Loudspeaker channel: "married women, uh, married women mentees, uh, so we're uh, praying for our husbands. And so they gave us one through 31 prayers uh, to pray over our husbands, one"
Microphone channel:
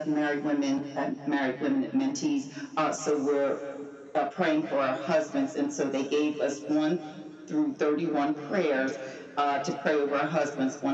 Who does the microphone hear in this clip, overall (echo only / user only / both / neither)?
echo only